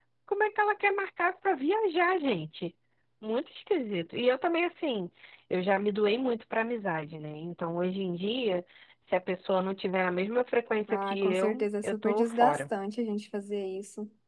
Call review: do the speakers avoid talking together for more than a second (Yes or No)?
No